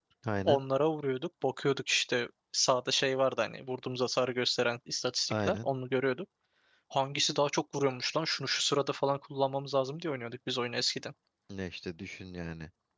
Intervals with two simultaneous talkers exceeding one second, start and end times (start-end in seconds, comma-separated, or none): none